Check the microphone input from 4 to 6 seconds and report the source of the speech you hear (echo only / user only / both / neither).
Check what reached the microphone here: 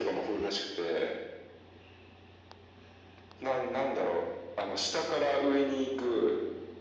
echo only